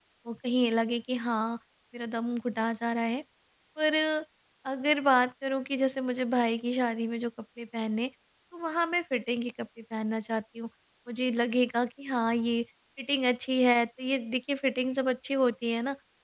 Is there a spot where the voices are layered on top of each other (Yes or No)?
No